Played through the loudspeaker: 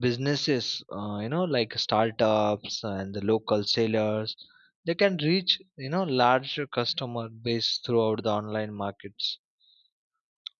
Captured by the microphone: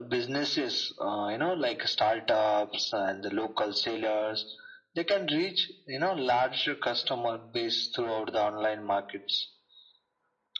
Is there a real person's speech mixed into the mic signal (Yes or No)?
No